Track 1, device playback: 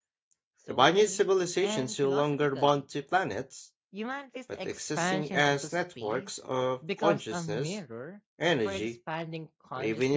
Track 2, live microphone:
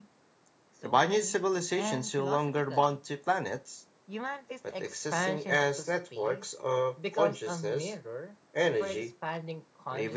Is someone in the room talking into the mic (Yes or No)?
No